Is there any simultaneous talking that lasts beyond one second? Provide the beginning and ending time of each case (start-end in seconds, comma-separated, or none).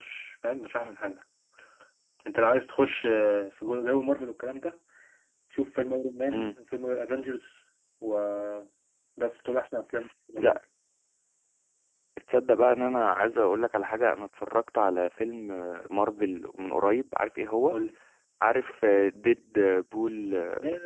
none